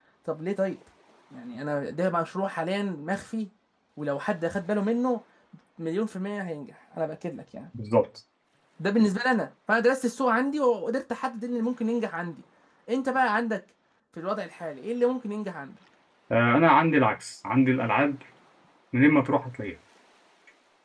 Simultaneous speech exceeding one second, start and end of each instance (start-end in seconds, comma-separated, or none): none